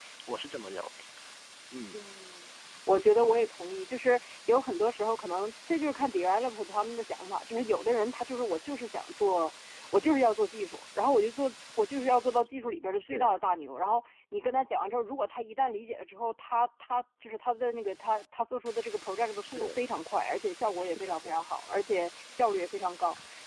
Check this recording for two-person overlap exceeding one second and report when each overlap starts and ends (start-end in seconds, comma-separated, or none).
none